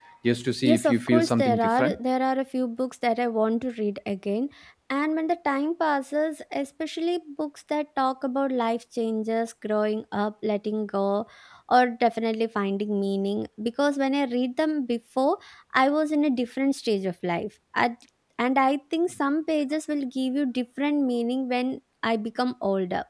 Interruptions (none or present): present